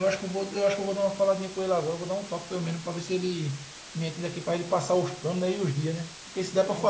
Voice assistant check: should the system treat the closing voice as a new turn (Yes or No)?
No